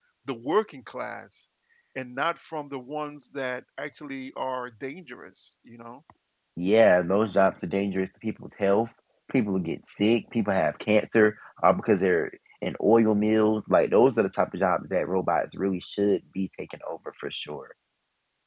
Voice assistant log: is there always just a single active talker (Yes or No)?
Yes